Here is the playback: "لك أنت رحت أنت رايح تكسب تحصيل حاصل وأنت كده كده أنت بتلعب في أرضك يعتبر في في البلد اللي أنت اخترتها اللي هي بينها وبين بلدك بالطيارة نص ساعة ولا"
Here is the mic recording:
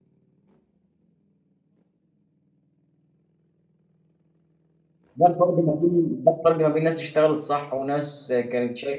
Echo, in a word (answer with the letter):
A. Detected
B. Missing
B